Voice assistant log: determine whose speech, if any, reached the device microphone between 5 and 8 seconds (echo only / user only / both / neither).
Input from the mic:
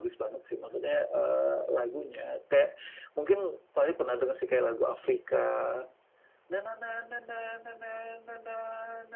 echo only